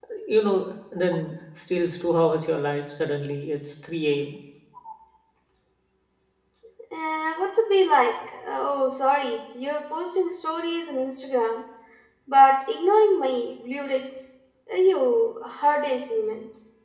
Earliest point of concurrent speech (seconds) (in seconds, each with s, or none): none